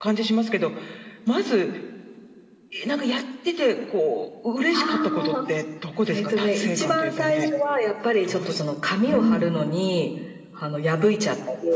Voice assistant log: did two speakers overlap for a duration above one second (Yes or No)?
Yes